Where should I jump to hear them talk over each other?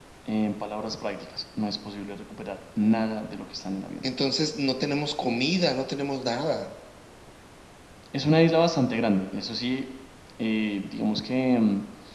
none

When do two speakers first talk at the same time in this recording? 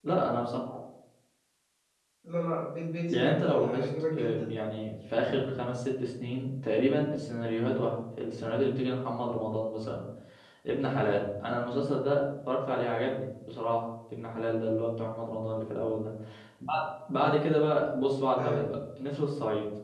3.1 s

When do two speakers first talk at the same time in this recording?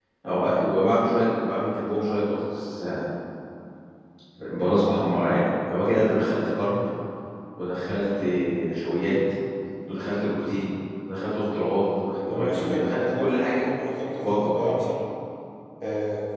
12.3 s

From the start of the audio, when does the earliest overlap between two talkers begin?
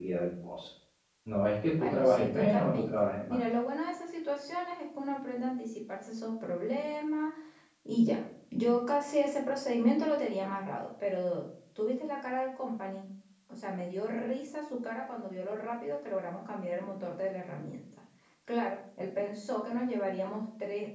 1.8 s

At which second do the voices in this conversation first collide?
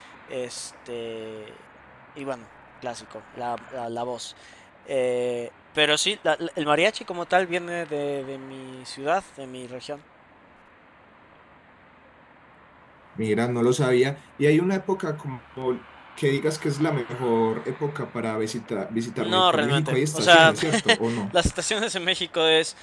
19.2 s

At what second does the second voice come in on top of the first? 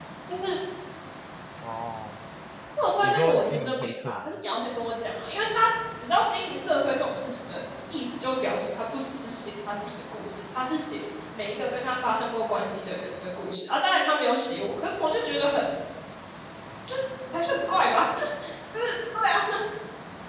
3.0 s

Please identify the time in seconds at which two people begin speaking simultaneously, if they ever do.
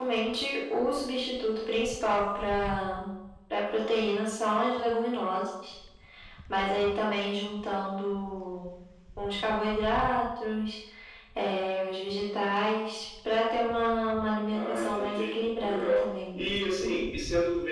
14.5 s

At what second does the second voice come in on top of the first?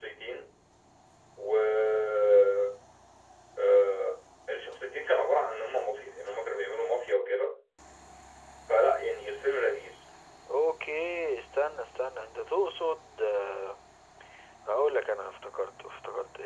none

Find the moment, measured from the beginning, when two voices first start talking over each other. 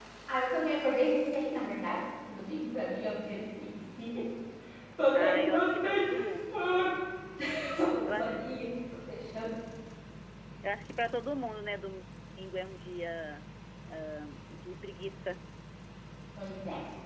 5.2 s

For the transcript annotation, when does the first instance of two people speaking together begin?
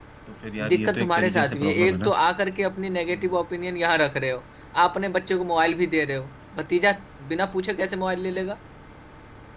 0.7 s

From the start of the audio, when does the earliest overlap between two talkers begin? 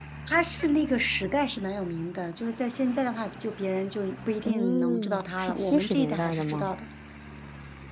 4.5 s

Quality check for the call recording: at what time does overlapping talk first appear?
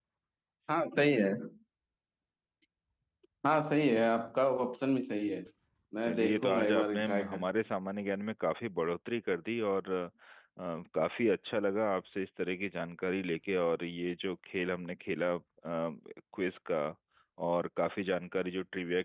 6.0 s

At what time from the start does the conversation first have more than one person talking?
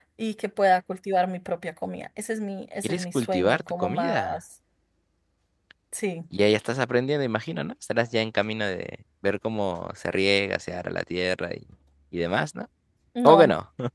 2.8 s

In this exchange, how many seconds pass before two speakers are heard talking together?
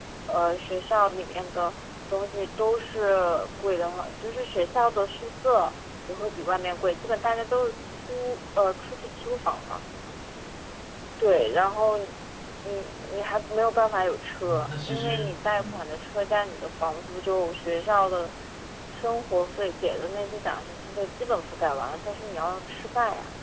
14.4 s

